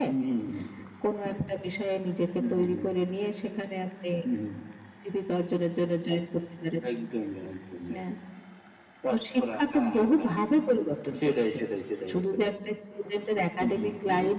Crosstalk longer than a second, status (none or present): present